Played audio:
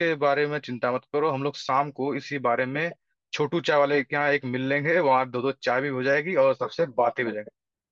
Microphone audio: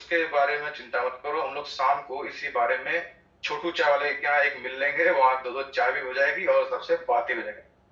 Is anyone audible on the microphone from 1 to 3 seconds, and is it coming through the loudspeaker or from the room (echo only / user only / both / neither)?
echo only